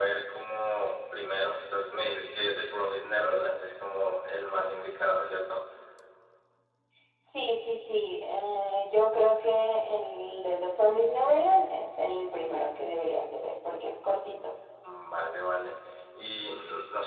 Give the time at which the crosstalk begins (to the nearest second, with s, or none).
none